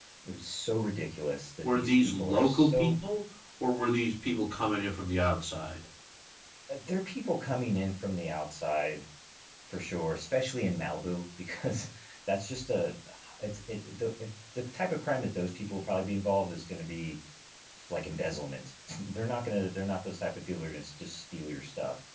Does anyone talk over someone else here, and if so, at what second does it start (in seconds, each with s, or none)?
1.6 s